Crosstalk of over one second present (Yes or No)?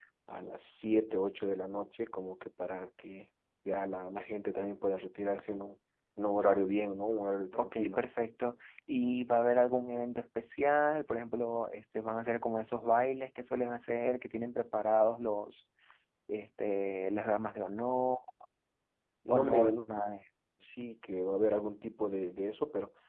No